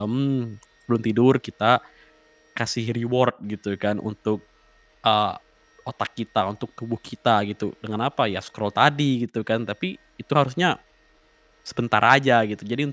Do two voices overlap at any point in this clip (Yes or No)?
No